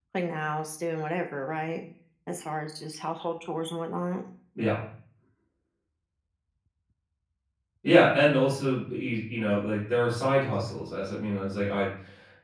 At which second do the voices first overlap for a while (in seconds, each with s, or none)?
none